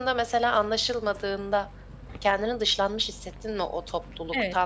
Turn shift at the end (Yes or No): Yes